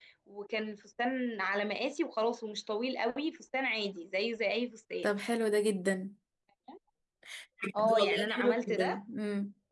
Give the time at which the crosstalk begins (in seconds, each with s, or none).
7.8 s